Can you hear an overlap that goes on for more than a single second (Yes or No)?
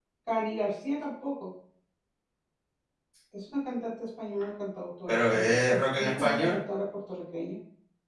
Yes